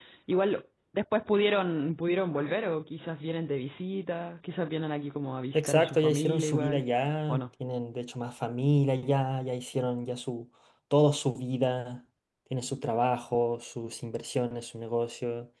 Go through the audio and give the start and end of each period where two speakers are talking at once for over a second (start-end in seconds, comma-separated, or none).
5.5-6.8